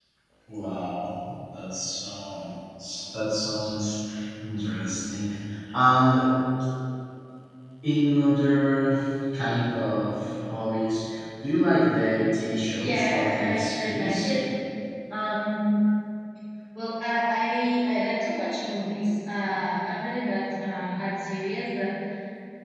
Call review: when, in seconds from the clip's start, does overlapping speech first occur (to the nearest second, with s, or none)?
13 s